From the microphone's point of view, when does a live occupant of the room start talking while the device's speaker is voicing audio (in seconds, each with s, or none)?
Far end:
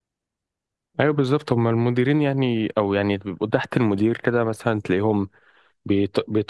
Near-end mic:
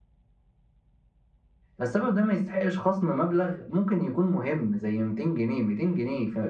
1.8 s